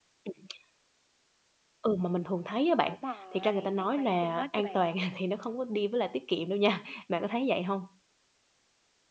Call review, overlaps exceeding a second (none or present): present